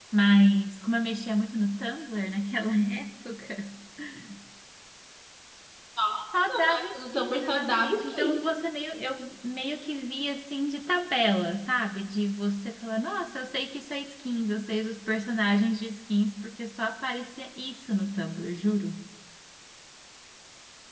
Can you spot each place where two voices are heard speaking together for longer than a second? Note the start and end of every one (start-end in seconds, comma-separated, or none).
6.5-8.4